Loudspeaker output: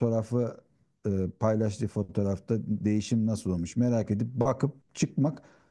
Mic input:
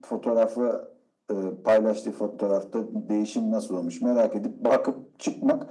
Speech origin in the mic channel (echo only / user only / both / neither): echo only